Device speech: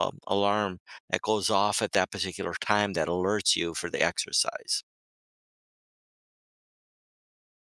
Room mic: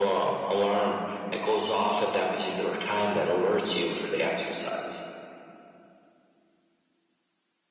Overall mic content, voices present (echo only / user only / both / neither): echo only